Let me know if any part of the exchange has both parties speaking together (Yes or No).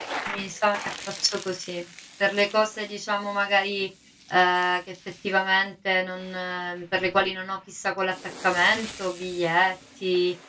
No